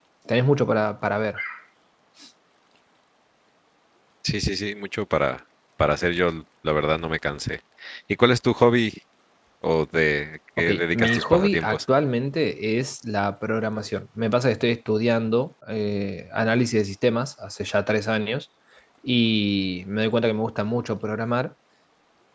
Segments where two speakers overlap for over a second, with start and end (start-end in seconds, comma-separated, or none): 10.6-11.8